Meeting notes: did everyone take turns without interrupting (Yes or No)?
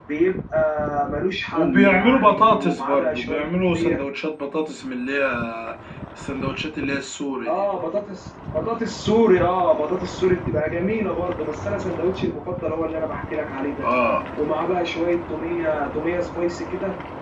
No